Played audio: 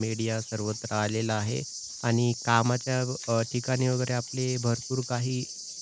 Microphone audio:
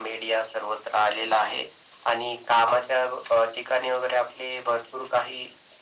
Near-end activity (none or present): none